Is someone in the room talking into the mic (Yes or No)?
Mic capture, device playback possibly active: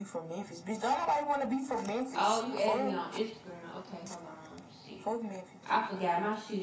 Yes